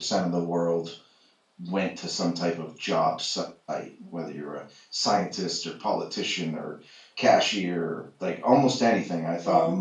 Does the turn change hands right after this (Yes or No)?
No